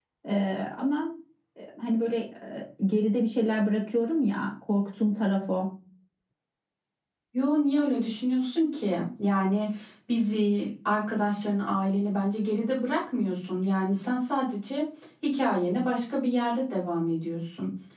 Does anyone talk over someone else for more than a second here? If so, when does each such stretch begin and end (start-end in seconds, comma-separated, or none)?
none